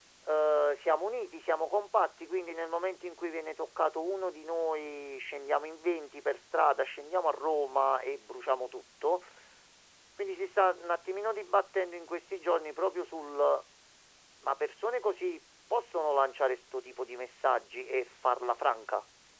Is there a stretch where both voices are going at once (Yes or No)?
No